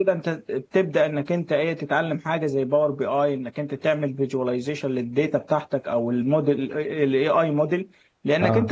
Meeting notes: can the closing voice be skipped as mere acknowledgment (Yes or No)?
Yes